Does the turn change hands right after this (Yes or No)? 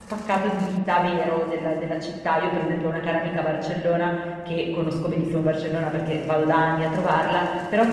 No